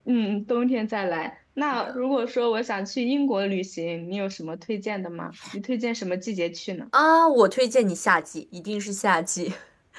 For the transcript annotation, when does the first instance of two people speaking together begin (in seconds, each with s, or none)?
none